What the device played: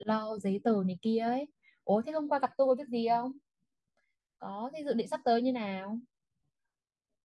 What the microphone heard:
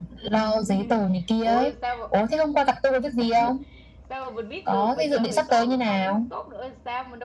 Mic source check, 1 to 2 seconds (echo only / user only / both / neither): both